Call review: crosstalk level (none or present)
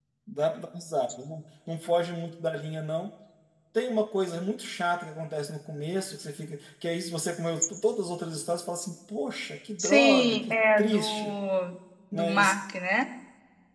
present